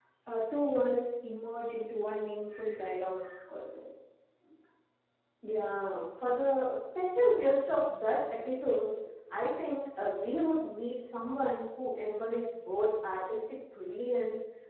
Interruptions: none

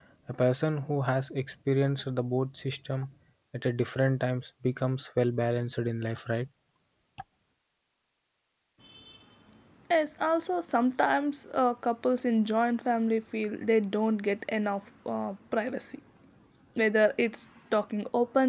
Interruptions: none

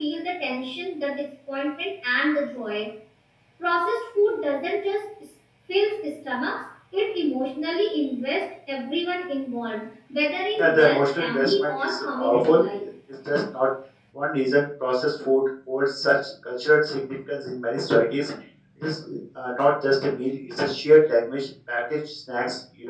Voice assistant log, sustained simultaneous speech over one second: present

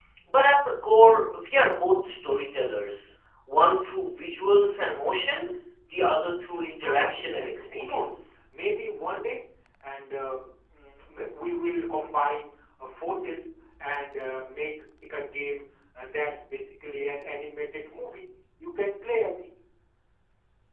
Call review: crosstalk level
present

